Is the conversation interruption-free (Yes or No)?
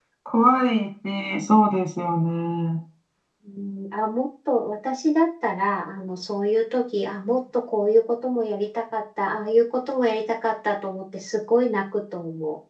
Yes